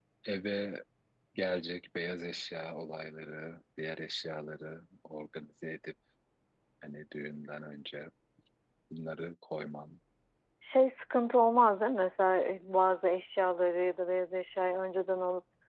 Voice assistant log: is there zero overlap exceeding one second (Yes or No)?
Yes